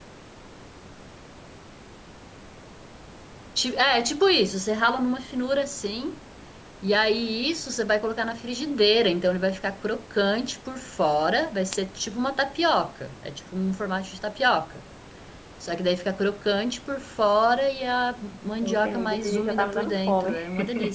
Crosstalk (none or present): present